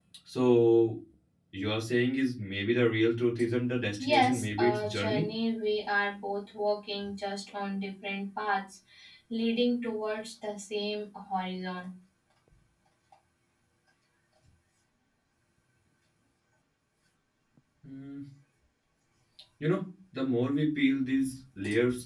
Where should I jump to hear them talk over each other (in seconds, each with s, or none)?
4.0 s